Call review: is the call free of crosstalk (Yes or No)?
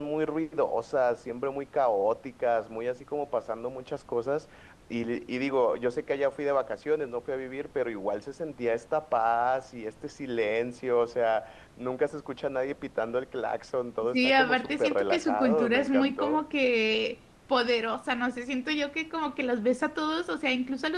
No